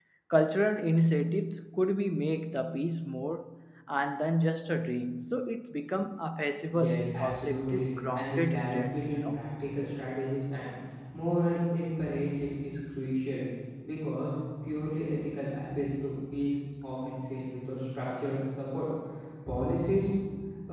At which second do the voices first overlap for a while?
6.7 s

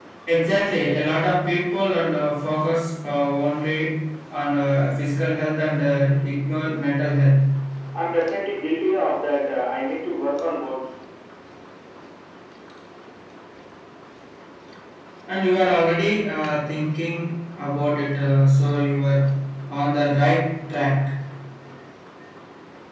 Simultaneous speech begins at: none

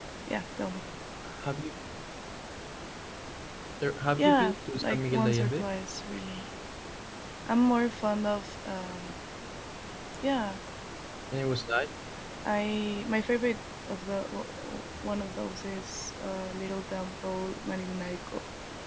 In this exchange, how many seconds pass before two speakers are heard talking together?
4.2 s

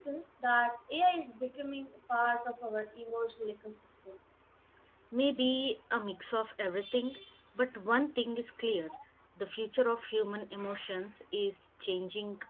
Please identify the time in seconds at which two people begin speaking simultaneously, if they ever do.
none

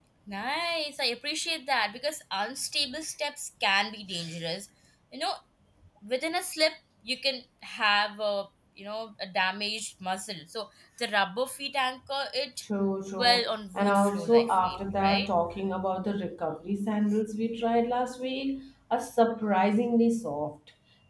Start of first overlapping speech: 13.1 s

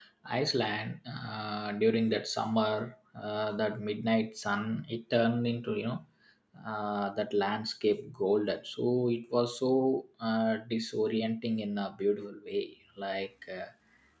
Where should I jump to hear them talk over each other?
none

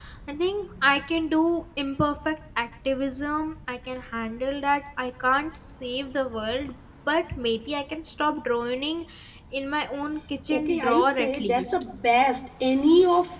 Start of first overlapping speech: 10.5 s

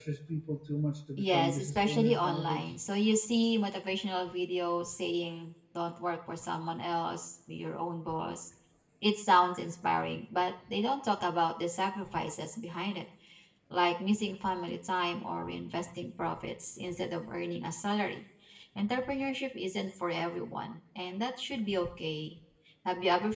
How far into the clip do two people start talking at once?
1.2 s

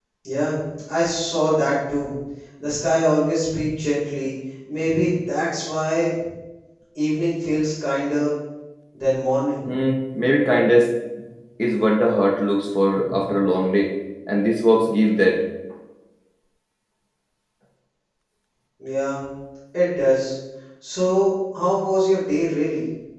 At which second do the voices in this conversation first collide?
none

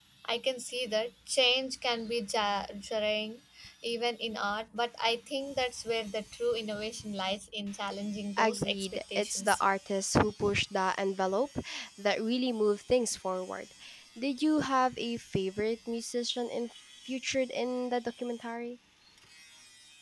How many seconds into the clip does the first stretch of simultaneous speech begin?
8.4 s

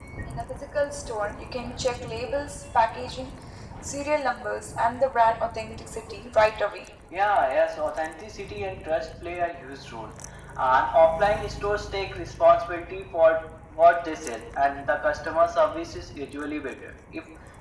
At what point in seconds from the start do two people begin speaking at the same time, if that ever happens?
none

